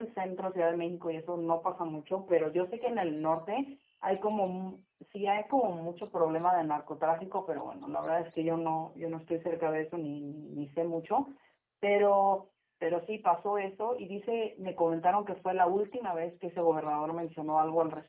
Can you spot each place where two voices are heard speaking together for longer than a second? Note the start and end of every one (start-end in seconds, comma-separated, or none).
none